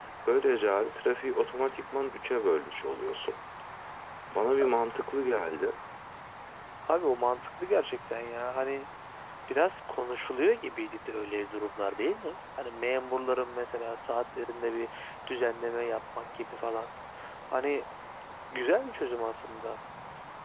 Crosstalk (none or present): none